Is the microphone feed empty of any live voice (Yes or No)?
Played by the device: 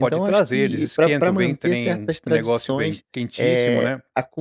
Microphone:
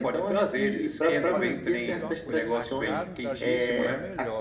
No